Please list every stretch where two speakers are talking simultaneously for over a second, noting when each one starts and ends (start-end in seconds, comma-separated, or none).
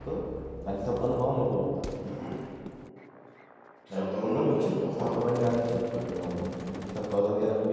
3.9-5.1